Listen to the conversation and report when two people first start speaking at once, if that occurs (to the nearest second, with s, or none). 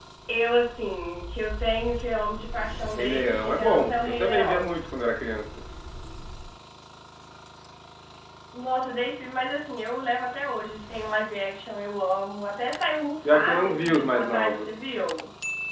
3 s